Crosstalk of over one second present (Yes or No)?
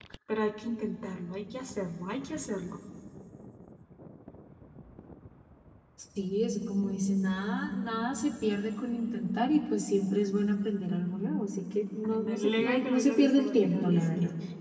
Yes